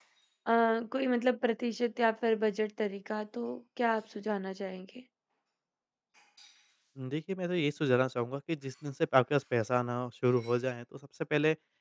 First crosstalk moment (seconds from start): none

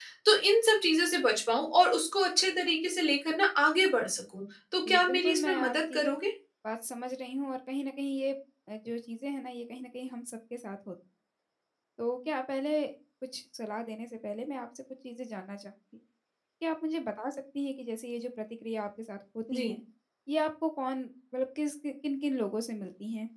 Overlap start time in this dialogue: 4.8 s

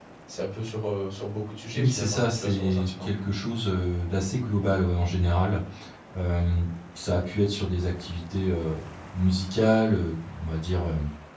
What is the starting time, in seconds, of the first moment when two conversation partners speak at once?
1.8 s

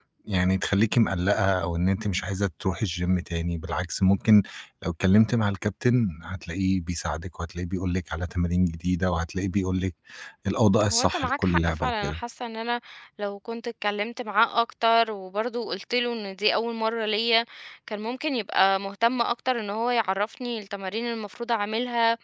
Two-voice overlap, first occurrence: 10.9 s

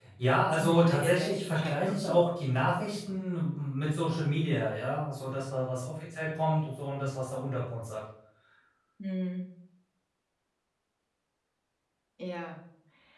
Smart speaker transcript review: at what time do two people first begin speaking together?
0.5 s

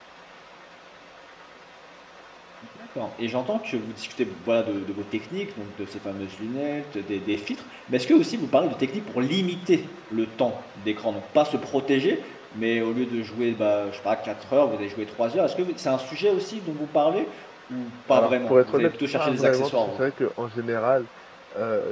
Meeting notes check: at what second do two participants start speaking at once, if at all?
18.1 s

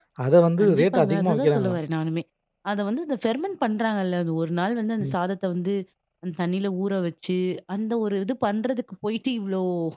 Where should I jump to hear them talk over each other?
0.6 s

